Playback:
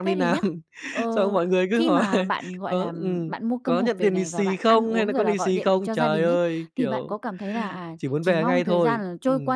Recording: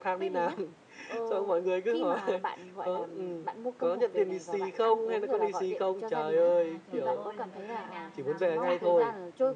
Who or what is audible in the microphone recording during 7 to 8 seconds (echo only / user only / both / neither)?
both